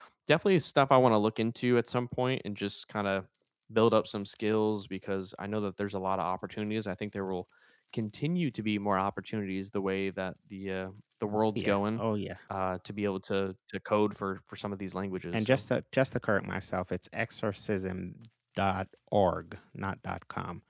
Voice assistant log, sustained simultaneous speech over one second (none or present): none